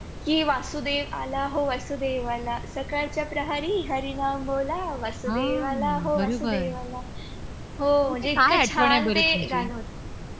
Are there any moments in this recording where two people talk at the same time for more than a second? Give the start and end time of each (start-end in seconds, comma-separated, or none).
5.3-6.7, 8.1-9.7